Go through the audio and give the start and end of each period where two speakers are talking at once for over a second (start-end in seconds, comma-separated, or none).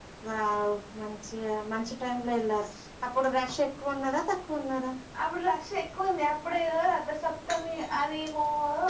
none